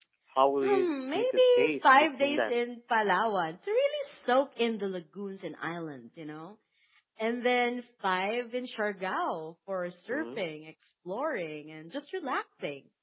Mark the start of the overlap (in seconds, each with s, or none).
0.6 s